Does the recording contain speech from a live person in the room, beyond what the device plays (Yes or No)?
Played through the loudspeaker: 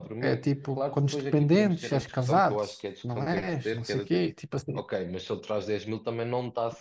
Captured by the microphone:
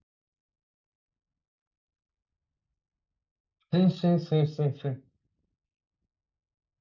Yes